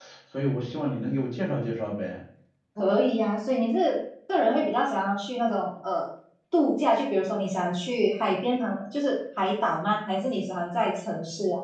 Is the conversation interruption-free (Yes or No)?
Yes